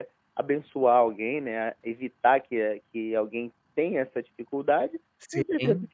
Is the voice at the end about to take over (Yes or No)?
No